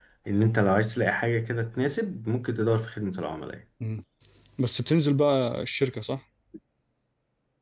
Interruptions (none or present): none